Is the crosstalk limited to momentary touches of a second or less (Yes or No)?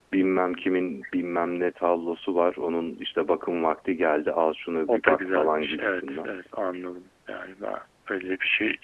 No